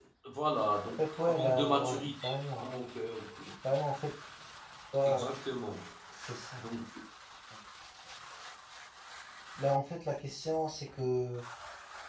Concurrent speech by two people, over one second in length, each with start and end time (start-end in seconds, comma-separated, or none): 1.2-2.7